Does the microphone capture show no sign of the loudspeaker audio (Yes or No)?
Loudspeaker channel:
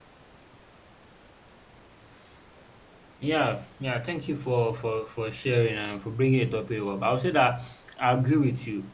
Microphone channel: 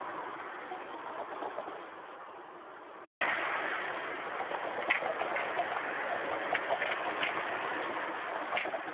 Yes